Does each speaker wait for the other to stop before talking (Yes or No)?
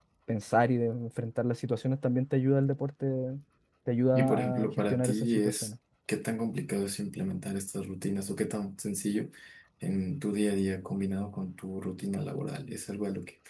No